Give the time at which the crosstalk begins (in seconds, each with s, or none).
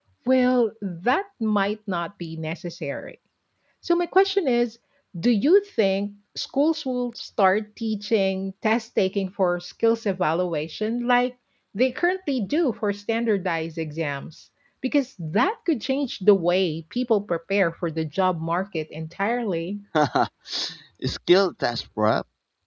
none